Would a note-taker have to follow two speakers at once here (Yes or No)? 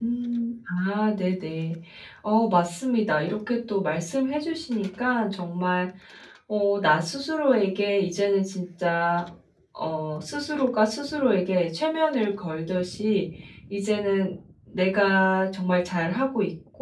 No